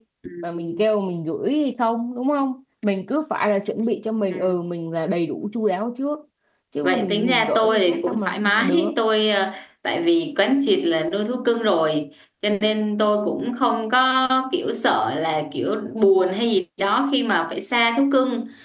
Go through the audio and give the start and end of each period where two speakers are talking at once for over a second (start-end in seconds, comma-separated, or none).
6.8-8.9